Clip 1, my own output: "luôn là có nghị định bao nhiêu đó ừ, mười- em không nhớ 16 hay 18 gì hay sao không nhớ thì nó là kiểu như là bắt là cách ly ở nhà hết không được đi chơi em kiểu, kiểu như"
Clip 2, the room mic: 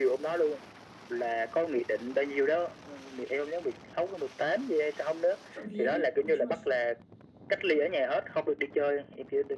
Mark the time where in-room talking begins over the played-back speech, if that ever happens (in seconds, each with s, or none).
5.5 s